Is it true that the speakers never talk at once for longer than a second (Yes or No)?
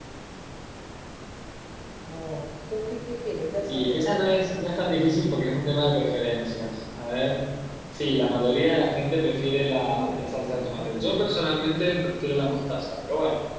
No